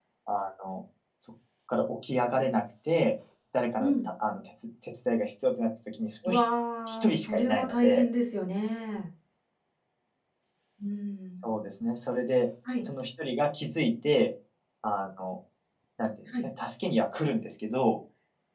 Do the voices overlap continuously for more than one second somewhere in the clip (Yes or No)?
Yes